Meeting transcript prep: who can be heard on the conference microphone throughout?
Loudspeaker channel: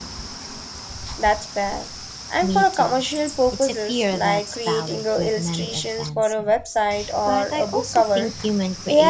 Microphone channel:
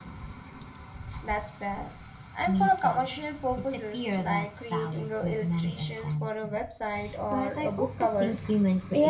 echo only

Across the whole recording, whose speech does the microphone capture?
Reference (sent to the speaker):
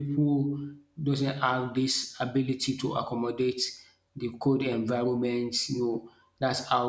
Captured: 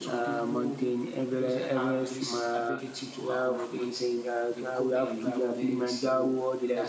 both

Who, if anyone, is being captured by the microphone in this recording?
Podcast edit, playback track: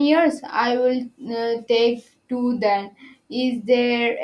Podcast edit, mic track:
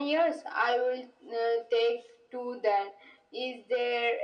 echo only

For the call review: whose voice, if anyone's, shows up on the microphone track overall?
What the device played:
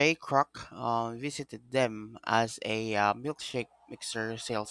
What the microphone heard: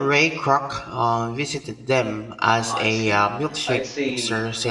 both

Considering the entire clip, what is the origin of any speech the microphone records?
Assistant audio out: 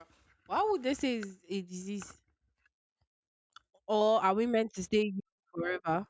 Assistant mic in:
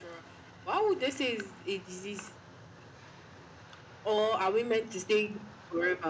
echo only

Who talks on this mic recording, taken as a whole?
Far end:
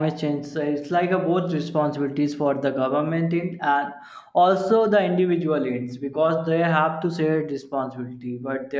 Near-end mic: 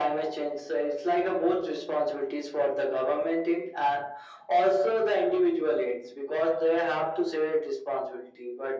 echo only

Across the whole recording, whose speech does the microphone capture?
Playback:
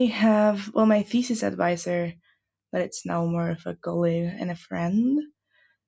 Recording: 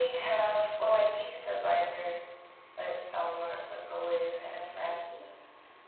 echo only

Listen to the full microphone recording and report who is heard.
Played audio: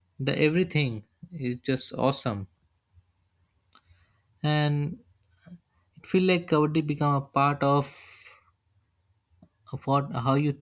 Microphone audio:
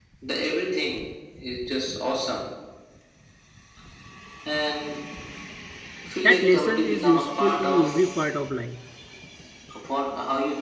both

